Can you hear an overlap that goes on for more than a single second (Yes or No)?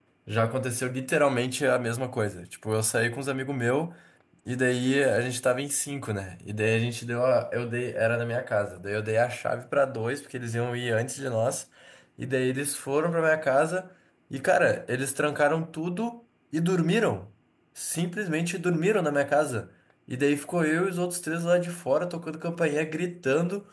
No